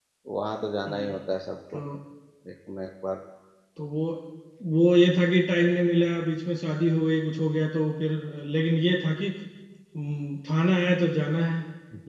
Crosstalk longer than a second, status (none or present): none